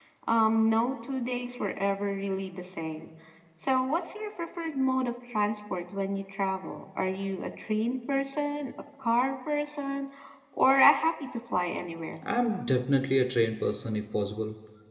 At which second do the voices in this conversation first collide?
none

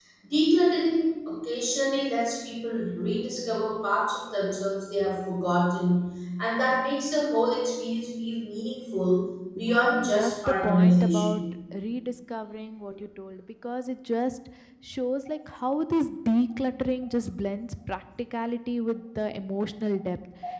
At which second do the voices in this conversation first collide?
9.7 s

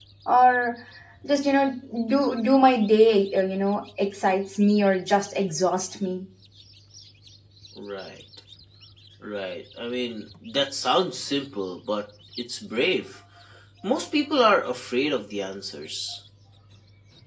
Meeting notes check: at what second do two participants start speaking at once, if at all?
none

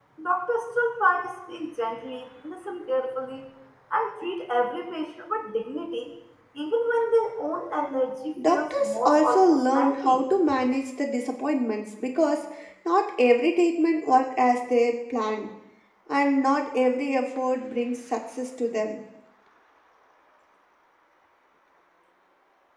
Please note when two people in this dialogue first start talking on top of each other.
8.4 s

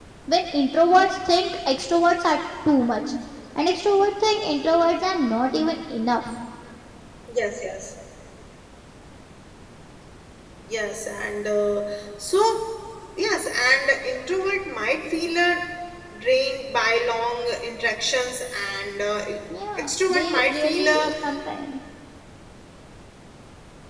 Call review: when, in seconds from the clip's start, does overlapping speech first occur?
19.8 s

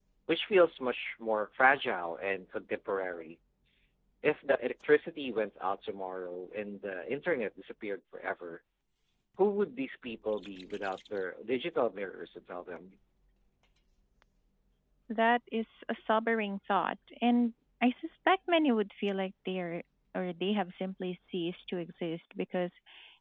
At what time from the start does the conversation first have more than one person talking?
none

